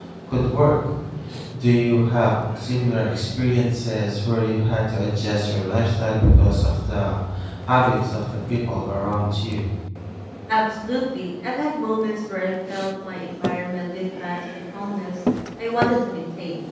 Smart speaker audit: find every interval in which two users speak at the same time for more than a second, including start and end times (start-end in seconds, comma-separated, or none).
none